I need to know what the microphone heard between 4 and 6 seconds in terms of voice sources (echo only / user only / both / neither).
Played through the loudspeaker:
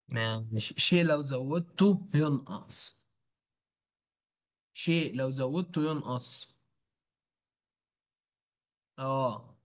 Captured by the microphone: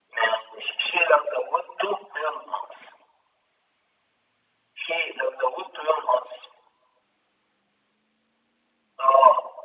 echo only